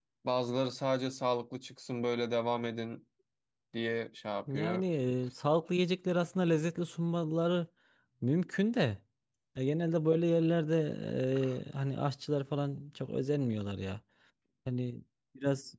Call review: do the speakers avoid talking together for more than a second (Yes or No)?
Yes